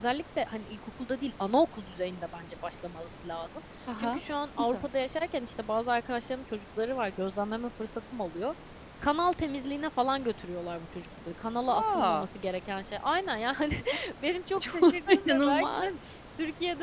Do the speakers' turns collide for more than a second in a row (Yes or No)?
Yes